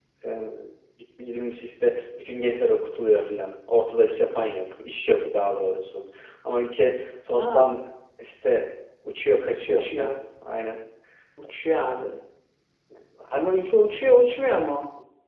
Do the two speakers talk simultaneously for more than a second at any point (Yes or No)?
No